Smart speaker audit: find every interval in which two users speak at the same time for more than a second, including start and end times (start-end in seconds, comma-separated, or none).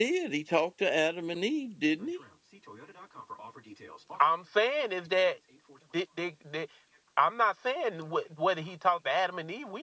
none